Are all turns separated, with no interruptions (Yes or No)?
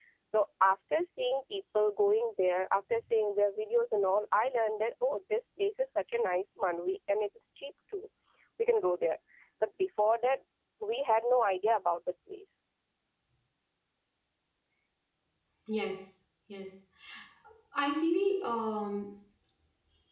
Yes